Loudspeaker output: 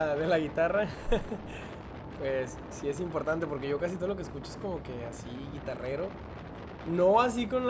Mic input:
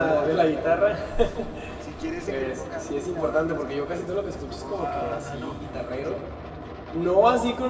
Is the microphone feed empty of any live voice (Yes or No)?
No